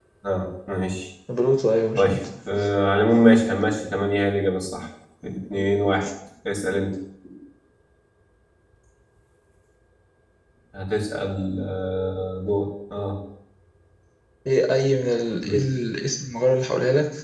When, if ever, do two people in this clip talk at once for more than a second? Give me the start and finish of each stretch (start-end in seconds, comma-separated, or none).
none